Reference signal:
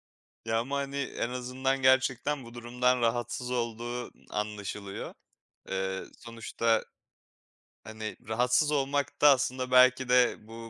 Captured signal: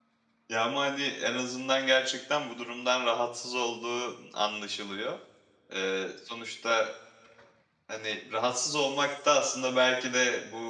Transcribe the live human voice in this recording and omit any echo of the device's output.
none

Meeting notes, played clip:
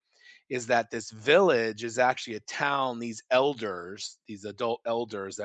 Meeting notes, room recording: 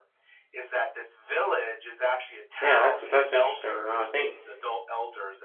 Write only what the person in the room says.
Yeah, that's that's interesting, you know, I think

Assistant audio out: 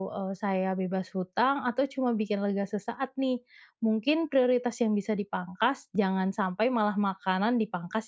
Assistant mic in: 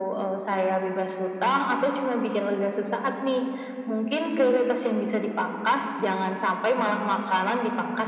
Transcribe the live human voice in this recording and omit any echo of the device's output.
none

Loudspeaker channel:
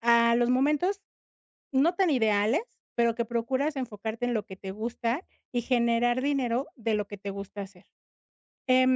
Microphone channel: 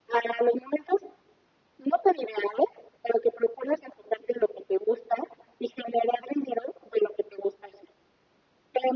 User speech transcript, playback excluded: none

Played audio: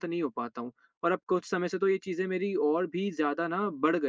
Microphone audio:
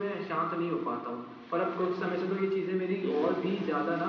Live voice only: हुँ, हुँ, हुँ।

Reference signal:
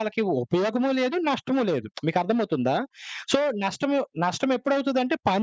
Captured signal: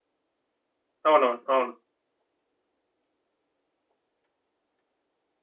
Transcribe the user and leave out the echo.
అవునవును. అవును.

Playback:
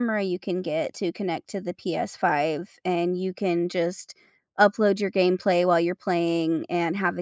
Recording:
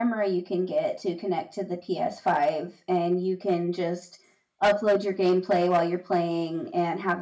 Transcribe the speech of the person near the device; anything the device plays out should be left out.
none

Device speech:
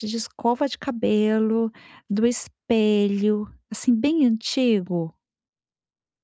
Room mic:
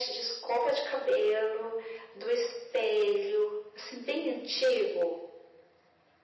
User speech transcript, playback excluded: none

